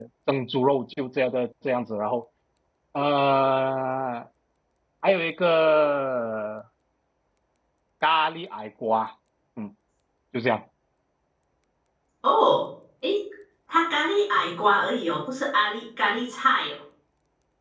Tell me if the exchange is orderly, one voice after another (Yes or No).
Yes